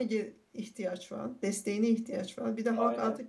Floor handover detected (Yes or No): No